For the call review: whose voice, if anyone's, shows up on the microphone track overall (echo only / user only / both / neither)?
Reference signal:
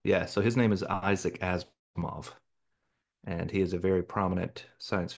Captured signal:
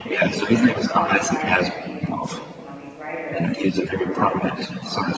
both